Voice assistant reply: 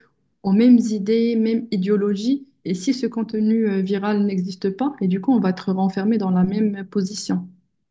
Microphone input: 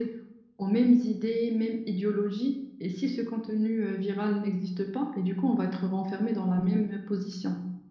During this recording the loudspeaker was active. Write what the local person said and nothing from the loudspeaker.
none

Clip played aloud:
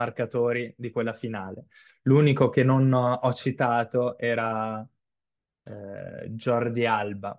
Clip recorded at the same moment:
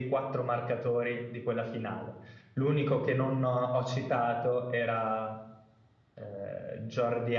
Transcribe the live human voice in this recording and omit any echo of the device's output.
none

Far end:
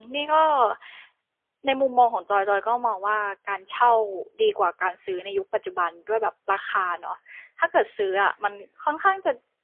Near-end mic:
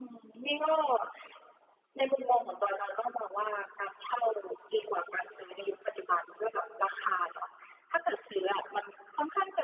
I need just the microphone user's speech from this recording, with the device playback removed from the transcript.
none

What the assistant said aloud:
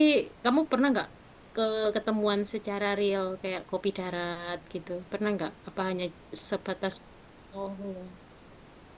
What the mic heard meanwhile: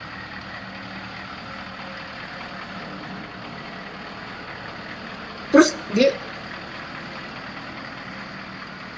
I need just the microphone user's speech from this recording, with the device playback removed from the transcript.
terus dia

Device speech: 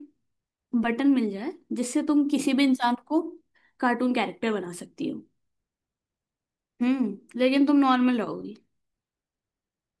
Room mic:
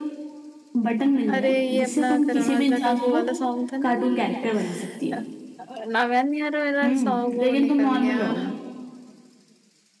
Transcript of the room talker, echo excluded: अरे ये अपना करण औजला का वो वाला सॉन्ग था ना ये अ, अ, नागान यार मेरा सॉन्ग वो निकल गया अ,

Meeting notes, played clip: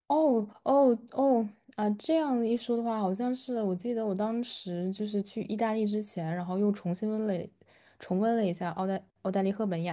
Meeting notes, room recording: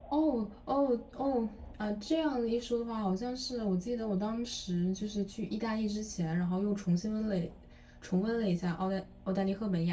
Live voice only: none

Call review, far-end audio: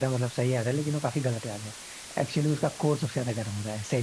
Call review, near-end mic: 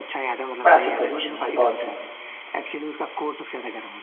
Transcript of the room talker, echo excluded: बड़ा सिंपल क्वेश्चन है भाई बहुत सिंपल

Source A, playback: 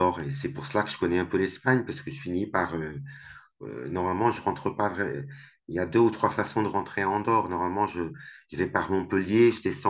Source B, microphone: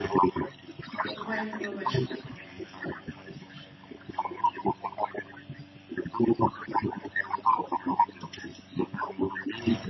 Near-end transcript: ouais, ouais, ouais, je comprends.

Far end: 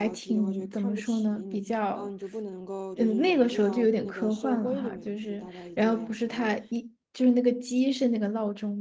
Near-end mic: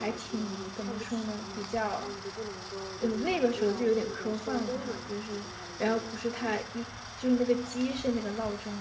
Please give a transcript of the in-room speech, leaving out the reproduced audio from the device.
none

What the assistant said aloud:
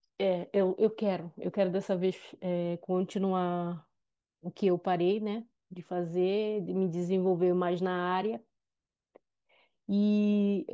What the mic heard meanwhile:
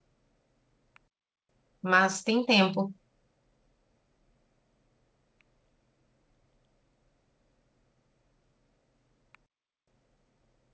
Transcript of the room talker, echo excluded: mas tem tempo.

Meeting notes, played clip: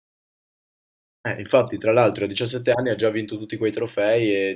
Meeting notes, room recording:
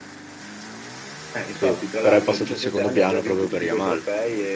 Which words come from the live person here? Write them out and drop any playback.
sì, però è passato in secondo piano proprio per Yamal.

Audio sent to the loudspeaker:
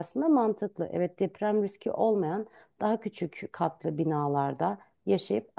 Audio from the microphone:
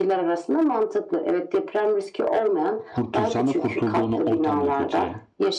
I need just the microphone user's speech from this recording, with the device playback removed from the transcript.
Kurtulsan da kurtulduğunu ortam da kötü yani.

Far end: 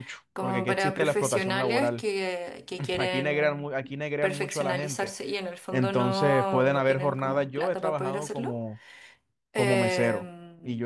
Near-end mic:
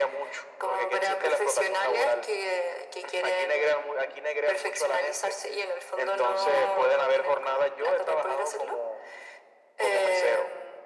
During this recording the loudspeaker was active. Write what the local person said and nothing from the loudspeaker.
none

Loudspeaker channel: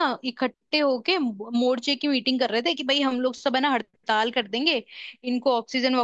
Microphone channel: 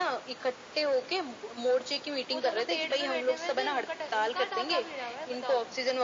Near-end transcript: वो दोनों पेड़ पे बैठे हुए थे उनका टा- उनका डाका भिड़ा हुआ है बताओ तुम

